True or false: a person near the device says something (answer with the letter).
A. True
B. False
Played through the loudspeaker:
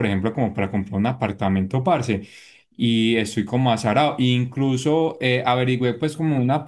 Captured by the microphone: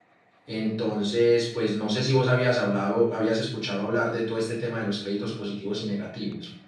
A